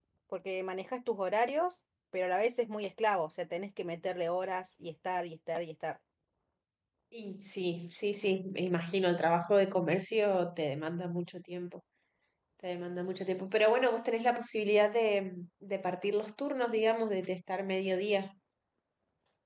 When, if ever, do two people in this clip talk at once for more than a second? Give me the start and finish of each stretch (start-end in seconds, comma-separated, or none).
none